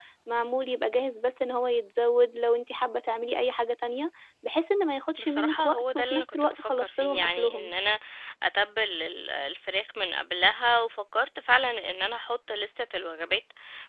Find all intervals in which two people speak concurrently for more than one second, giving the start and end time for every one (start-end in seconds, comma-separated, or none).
5.2-7.7